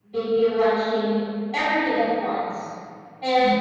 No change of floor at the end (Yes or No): Yes